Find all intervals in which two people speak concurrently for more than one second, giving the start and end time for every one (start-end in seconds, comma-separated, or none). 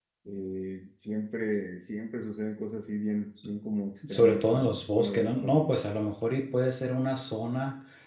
4.1-5.7